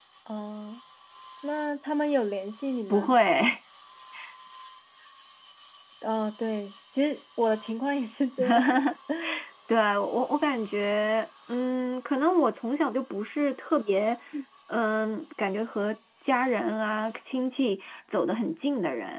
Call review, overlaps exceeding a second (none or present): none